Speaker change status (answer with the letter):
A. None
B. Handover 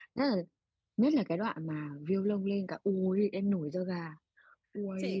B